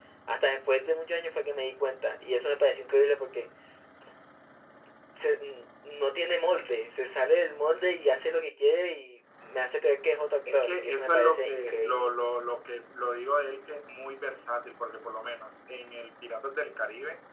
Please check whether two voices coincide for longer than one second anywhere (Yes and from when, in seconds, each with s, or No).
Yes, from 10.5 s